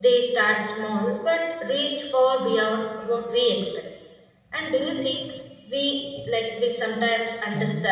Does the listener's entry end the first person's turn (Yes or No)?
No